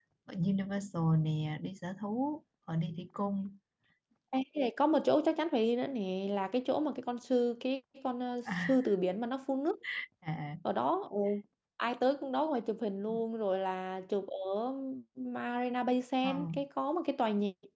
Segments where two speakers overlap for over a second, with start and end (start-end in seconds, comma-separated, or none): none